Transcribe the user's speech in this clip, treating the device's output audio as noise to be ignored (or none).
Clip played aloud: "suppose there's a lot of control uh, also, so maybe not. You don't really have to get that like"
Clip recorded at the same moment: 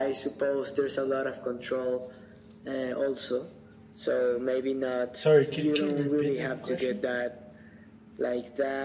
sorry can, can you repeat the question